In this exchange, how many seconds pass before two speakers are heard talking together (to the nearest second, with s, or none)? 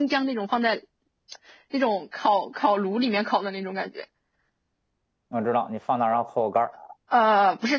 none